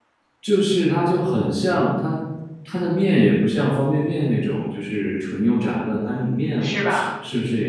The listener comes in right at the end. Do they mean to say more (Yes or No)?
No